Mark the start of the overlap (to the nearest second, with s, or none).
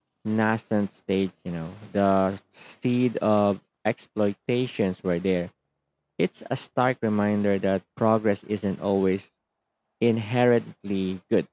none